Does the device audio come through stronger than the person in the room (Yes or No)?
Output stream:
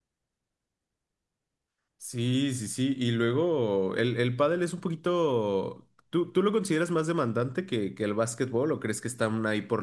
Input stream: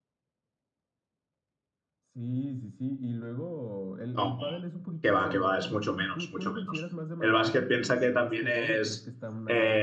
No